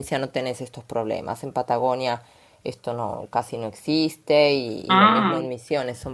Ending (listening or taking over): listening